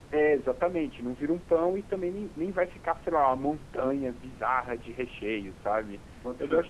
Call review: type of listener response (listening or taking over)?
listening